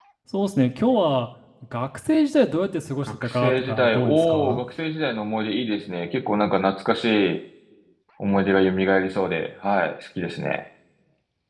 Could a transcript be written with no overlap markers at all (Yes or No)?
No